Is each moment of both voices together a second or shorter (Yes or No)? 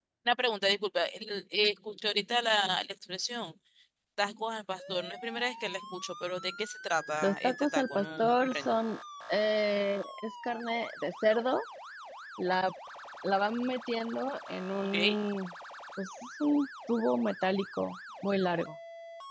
No